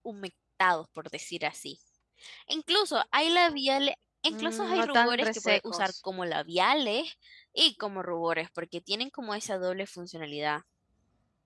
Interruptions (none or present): present